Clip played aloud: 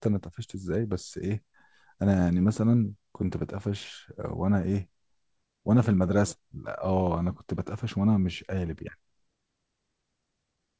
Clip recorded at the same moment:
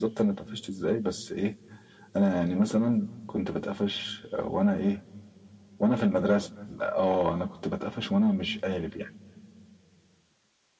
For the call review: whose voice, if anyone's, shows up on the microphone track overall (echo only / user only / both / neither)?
echo only